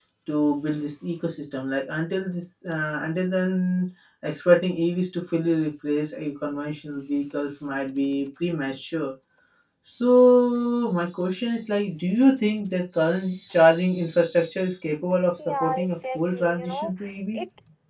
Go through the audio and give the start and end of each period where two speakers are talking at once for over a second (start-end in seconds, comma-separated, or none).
15.4-16.9